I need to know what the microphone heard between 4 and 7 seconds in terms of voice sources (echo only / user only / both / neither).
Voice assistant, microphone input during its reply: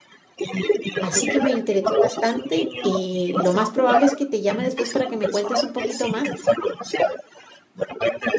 both